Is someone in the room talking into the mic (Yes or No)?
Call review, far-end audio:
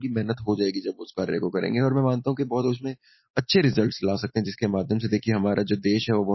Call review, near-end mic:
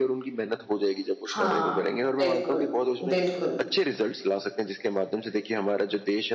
Yes